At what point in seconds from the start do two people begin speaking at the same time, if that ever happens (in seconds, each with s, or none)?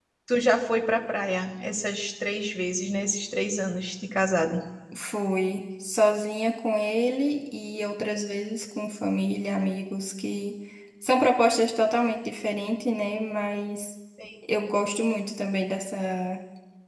none